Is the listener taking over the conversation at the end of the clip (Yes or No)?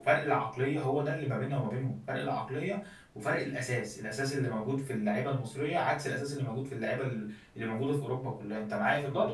Yes